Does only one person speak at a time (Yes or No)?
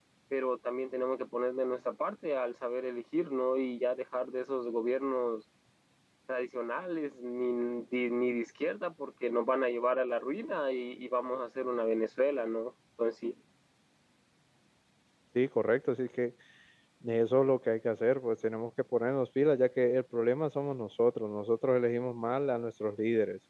Yes